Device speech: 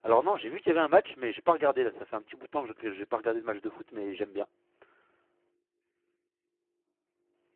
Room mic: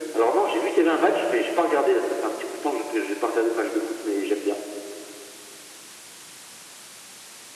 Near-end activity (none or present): none